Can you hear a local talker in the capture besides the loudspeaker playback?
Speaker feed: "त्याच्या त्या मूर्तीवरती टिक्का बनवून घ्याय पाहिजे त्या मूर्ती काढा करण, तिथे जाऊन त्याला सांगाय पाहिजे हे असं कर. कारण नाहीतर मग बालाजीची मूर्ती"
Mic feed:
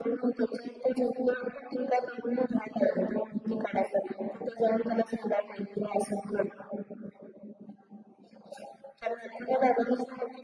No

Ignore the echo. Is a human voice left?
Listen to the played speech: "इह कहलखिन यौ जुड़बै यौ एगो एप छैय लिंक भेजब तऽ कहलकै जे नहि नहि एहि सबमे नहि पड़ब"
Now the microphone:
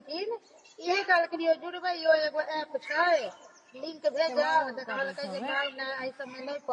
Yes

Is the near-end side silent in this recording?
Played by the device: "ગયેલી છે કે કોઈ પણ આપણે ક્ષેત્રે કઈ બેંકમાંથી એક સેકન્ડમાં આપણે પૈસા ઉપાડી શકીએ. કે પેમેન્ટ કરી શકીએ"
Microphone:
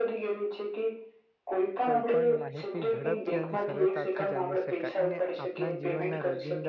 No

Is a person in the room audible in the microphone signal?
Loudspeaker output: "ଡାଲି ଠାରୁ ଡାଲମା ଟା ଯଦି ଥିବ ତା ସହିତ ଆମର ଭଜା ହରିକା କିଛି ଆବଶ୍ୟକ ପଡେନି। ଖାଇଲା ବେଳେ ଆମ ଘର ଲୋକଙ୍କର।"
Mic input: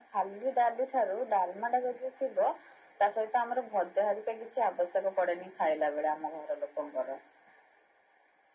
No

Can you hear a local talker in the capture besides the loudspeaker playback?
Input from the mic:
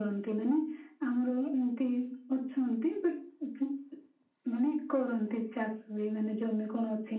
No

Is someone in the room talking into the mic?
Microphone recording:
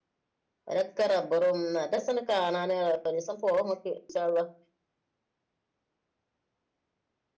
Yes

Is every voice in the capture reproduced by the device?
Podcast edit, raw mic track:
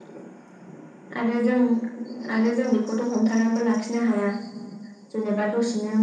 Yes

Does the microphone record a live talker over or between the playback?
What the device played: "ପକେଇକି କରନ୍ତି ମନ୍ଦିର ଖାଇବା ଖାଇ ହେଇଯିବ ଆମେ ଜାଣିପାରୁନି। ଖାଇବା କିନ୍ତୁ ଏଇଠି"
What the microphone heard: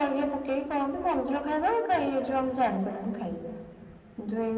No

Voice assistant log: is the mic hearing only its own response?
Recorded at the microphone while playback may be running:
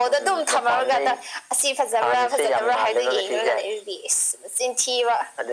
Yes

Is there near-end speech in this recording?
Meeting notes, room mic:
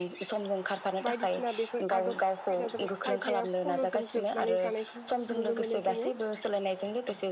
Yes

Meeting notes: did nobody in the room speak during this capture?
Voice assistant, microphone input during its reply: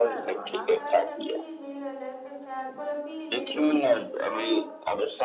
No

